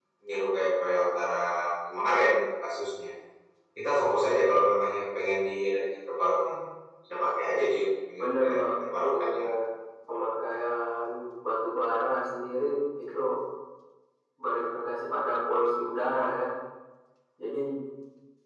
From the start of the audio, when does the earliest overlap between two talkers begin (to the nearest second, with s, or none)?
8 s